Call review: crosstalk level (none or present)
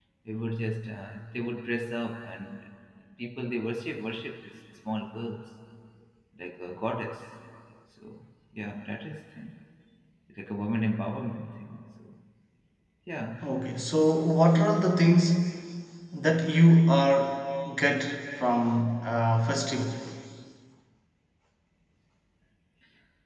none